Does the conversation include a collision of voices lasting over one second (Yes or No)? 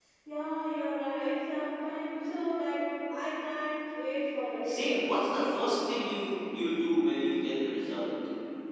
No